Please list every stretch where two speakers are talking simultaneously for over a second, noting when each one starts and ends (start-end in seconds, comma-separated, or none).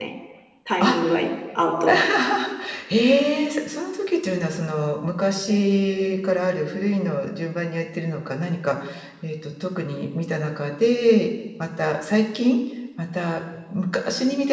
none